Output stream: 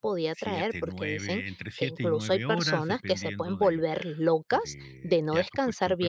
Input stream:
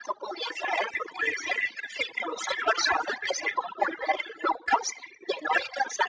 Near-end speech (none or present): none